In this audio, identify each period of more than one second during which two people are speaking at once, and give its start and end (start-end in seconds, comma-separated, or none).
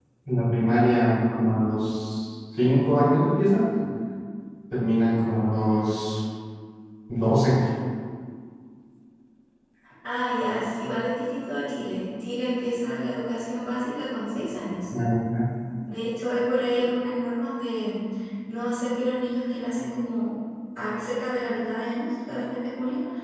none